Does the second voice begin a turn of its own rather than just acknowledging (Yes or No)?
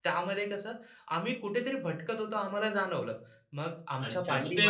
Yes